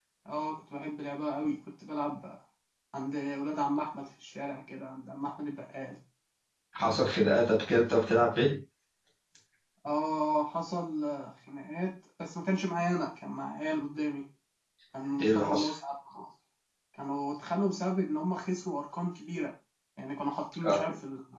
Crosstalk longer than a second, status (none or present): none